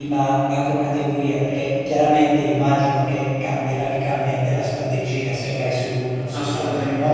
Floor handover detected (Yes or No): Yes